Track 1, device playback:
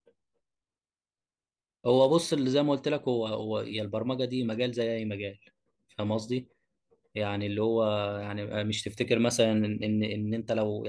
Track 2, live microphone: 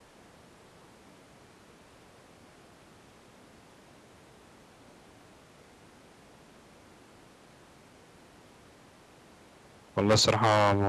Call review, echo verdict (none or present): none